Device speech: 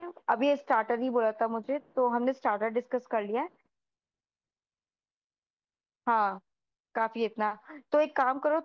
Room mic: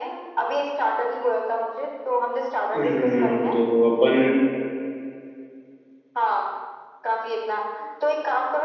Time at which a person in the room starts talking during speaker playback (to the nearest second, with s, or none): 3 s